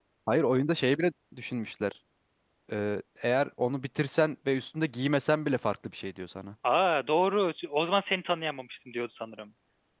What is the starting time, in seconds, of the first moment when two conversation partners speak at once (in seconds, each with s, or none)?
none